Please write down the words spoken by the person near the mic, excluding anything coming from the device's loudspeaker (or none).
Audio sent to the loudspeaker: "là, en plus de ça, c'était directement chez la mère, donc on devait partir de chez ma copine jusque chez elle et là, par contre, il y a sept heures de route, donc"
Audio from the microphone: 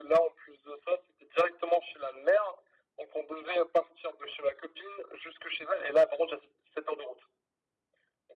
none